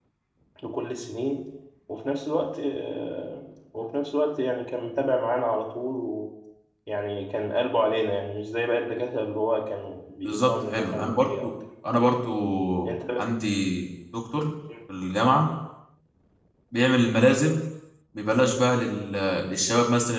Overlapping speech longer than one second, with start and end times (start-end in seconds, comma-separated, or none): 10.2-11.5